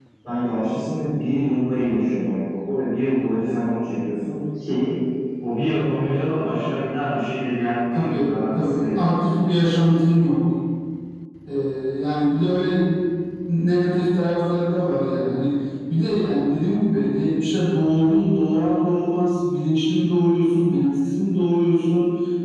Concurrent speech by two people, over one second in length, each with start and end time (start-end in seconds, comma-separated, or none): 8.0-9.3